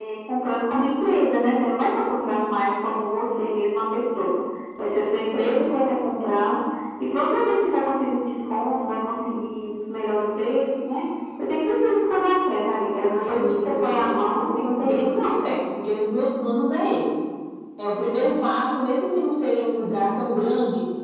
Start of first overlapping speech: 13 s

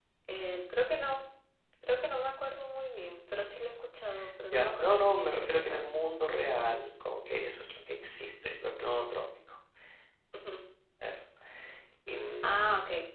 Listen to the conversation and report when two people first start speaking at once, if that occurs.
5 s

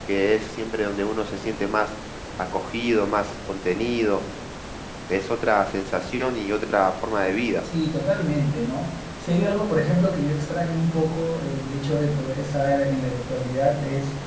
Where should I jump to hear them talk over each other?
none

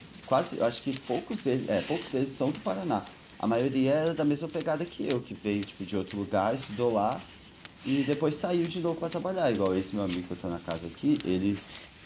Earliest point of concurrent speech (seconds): none

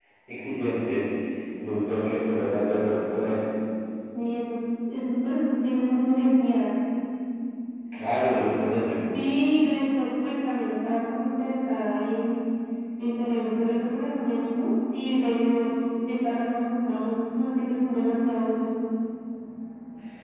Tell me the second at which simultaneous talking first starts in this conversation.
none

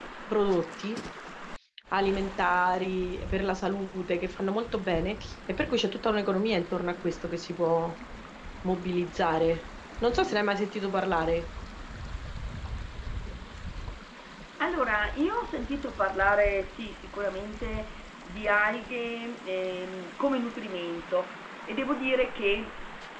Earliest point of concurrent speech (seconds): none

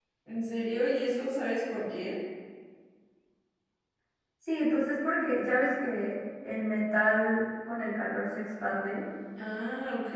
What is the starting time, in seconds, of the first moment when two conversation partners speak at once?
none

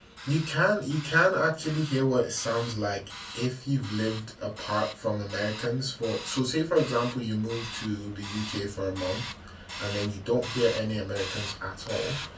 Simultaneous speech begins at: none

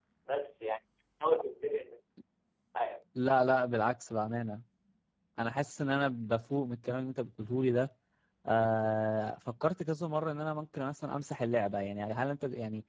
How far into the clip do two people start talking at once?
none

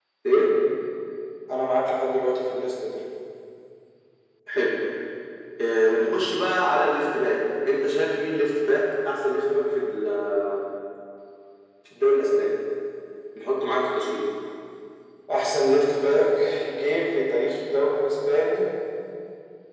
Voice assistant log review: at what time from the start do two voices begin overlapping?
none

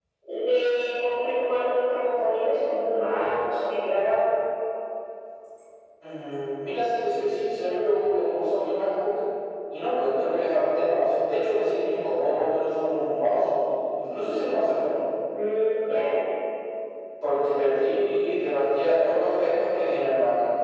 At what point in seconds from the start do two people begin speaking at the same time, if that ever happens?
none

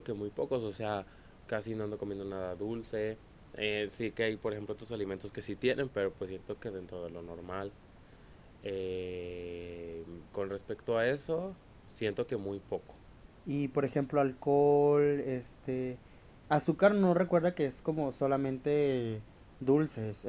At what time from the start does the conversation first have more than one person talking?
none

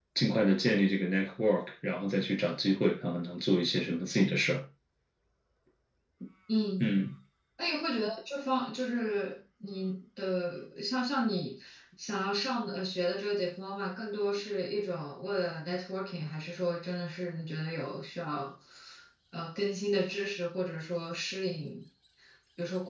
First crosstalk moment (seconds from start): none

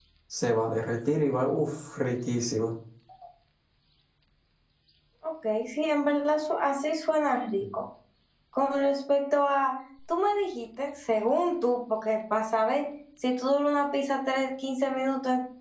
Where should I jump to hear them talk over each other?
none

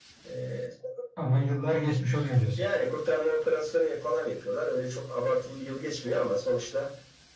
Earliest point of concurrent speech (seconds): none

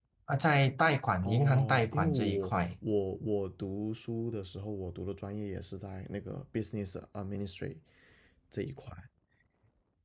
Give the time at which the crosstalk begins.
1 s

